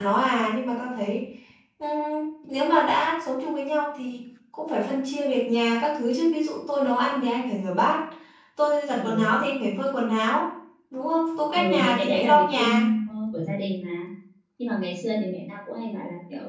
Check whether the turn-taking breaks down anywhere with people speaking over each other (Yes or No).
Yes